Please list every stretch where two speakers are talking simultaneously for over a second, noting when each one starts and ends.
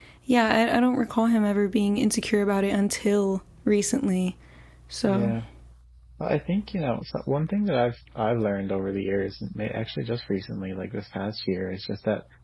none

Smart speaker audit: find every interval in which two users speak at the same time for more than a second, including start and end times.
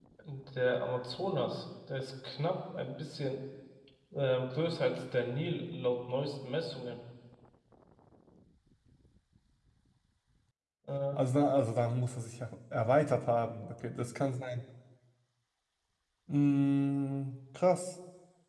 none

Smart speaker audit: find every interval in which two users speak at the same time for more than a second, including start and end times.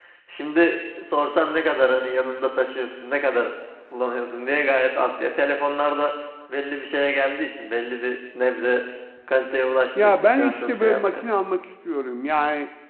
9.9-11.3

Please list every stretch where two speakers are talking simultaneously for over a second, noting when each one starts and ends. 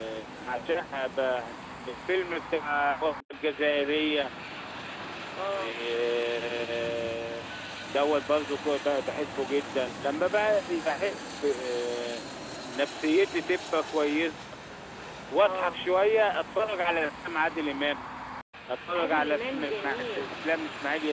18.9-20.2

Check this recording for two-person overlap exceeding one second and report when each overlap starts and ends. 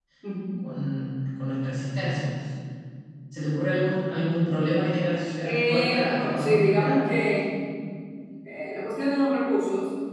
5.4-7.0

